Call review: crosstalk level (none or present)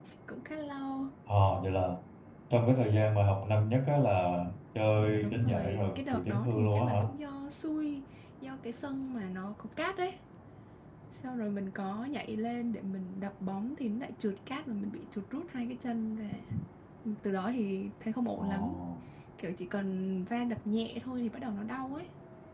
present